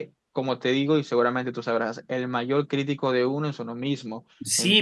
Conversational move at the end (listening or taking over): taking over